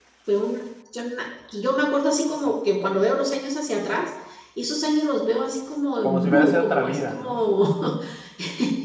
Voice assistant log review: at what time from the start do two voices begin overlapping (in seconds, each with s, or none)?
6.0 s